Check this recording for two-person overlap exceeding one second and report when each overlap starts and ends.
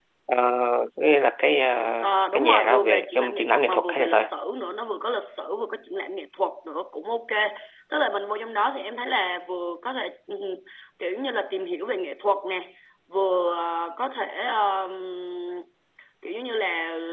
2.0-4.3

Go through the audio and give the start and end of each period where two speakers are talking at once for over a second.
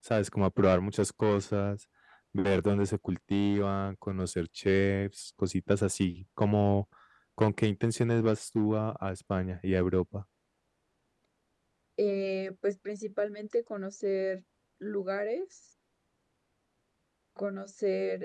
none

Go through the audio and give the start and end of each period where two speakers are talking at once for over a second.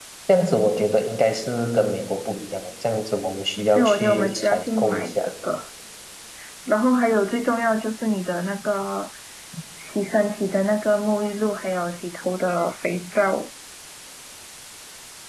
3.7-5.2

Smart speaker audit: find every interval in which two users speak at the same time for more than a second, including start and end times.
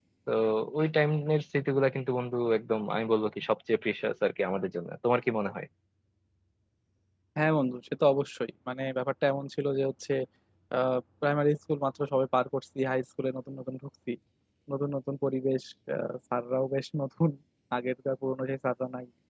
none

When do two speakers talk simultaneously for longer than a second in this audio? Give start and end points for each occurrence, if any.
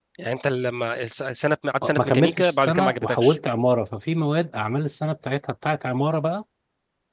1.8-3.4

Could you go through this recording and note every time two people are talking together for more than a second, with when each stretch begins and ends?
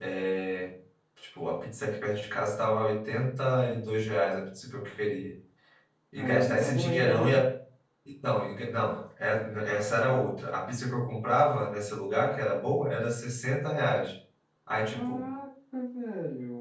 6.2-7.4

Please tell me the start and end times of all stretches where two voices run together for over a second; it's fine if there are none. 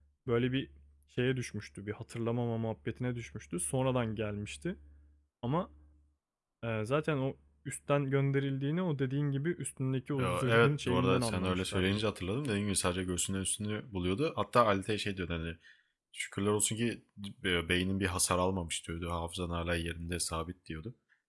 10.2-12.0

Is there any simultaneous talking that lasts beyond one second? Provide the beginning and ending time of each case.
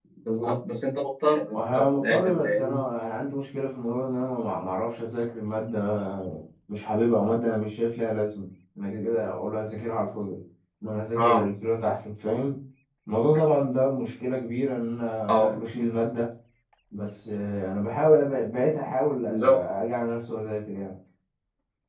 1.5-2.8

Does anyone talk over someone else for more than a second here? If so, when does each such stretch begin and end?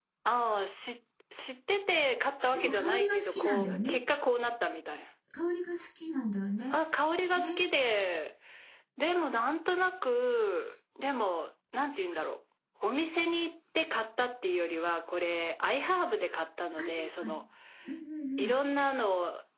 2.5-4.0

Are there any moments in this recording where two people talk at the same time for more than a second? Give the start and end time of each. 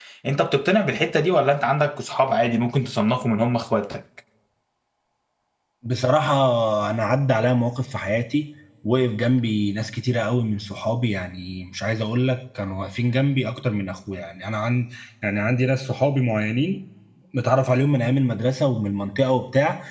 none

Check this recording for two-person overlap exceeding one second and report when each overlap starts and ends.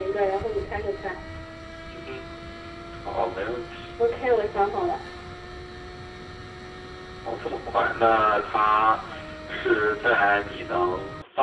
none

